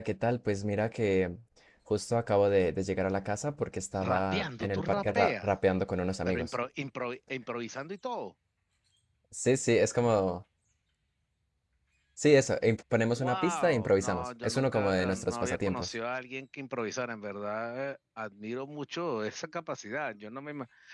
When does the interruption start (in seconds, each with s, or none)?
4.0 s